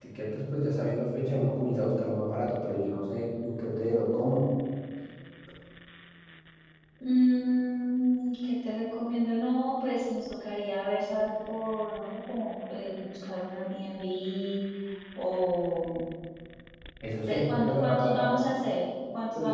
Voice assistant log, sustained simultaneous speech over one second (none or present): present